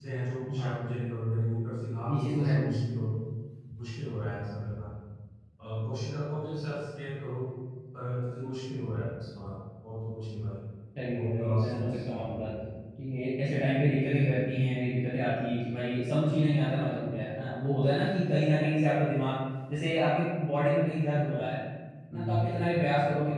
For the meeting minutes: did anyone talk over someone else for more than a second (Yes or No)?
Yes